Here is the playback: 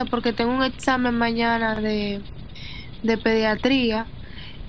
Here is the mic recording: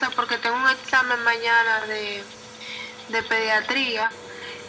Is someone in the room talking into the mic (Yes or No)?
No